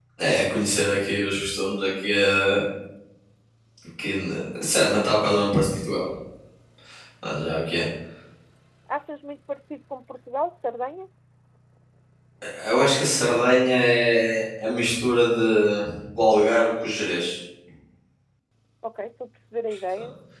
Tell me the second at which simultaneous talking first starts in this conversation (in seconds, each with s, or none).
none